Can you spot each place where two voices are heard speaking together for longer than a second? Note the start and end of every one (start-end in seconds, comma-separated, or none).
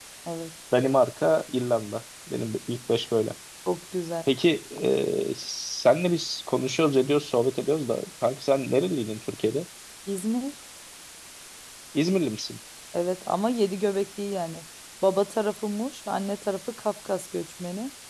none